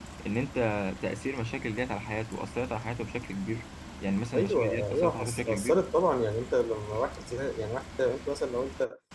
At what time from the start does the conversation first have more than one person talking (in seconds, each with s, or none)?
4.3 s